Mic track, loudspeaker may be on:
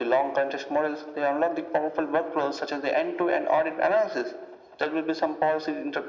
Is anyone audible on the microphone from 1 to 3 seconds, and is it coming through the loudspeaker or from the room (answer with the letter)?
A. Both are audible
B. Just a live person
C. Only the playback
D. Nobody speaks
C